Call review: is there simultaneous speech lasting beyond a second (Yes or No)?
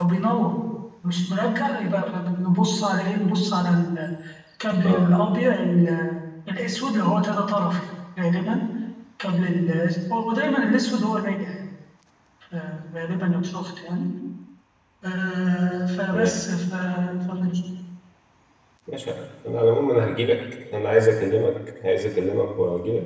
No